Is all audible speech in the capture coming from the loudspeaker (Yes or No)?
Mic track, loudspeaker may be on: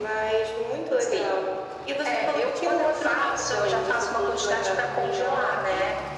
Yes